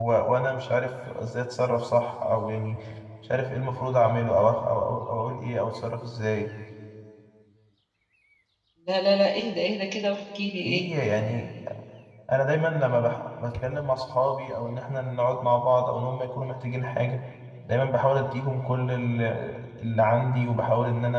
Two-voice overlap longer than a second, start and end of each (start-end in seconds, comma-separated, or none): none